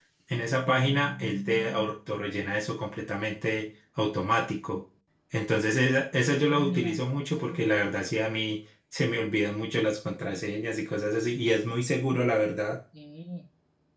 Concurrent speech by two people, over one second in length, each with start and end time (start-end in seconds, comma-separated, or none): 6.3-7.6